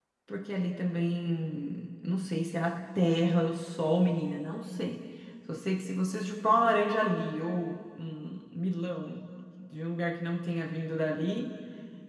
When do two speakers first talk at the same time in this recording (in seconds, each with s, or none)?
none